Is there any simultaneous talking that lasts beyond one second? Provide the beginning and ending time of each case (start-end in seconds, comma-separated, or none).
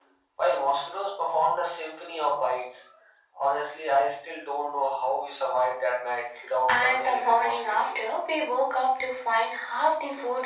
6.7-8.0